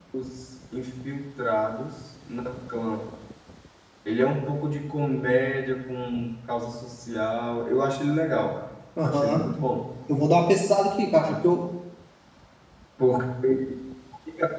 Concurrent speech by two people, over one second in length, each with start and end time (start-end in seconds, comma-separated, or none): none